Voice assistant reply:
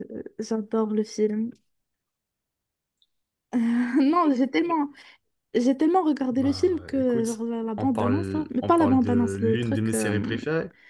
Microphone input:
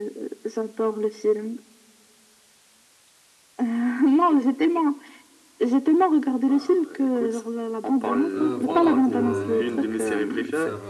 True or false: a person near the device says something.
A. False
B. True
B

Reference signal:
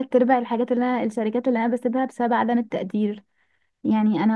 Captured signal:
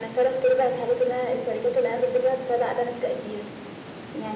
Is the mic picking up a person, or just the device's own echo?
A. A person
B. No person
B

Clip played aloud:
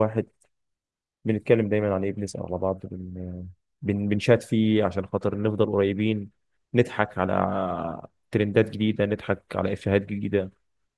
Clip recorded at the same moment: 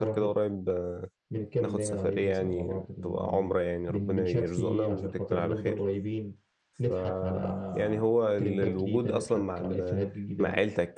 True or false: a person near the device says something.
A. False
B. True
B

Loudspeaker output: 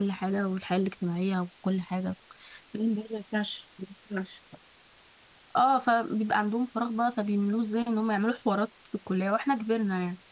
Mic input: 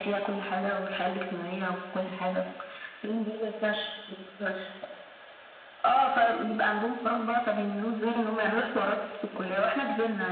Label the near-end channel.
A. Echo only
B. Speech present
A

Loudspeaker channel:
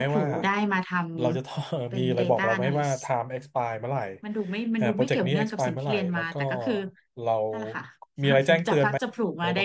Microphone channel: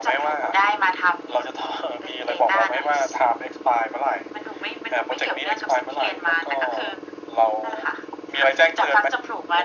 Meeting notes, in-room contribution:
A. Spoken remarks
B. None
B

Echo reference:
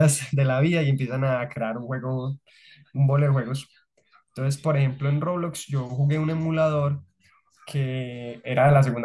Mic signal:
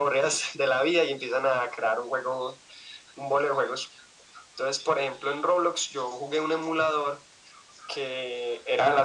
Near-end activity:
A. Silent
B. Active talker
A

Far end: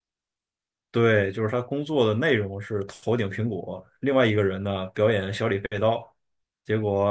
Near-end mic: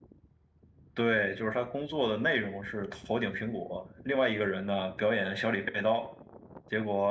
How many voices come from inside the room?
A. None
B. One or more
A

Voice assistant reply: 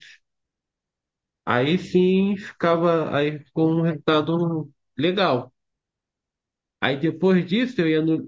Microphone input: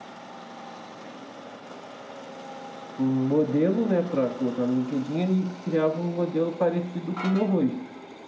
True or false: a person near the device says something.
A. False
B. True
B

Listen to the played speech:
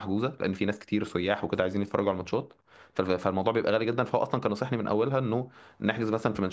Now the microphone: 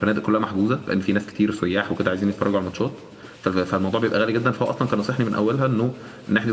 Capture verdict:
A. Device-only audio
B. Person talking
A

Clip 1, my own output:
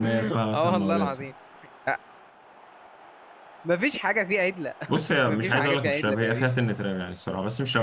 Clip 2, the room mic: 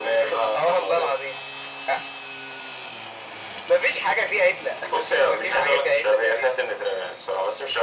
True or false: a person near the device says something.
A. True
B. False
B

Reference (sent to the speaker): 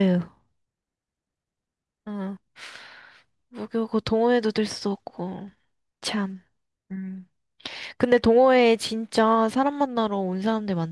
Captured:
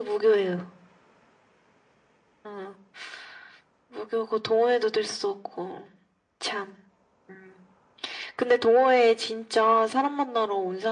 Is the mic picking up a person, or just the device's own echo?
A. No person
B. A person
A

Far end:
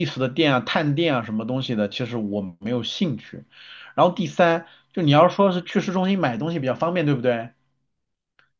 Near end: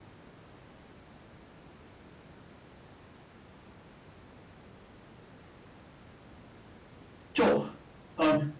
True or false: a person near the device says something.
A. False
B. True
B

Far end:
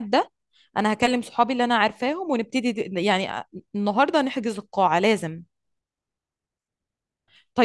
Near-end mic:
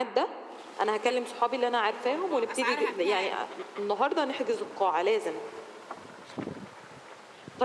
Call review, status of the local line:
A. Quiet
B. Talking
B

